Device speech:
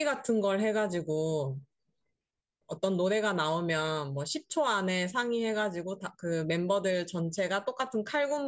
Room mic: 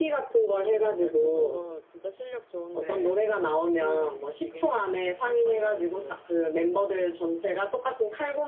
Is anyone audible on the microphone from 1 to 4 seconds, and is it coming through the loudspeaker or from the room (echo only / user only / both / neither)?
both